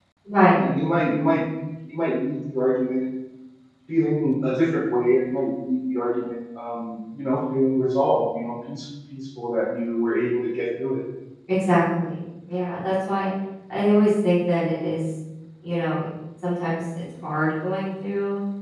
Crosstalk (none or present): none